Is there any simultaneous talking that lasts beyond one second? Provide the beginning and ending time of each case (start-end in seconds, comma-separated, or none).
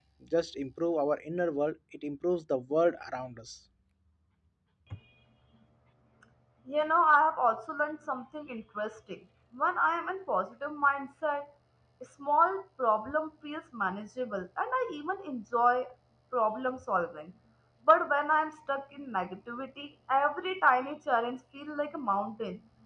none